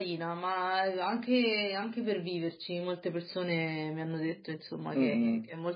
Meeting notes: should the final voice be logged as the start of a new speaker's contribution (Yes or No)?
Yes